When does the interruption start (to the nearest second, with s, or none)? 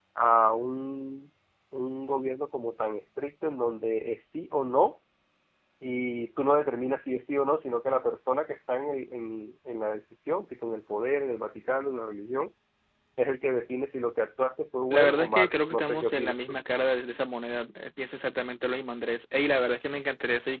15 s